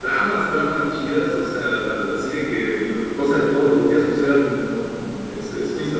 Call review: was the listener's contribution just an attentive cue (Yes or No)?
Yes